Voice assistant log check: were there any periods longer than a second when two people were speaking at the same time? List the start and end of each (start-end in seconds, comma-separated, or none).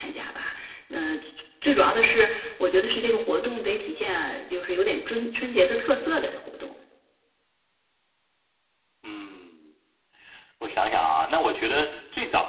none